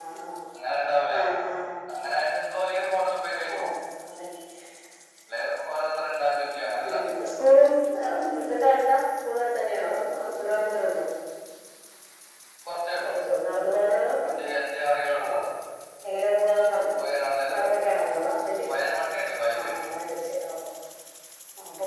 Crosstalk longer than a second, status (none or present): none